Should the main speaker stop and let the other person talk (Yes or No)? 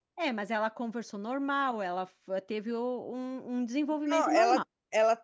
Yes